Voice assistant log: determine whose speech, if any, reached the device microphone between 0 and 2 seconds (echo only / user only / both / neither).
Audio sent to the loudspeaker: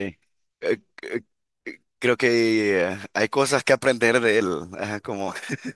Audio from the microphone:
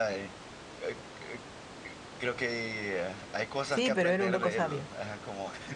echo only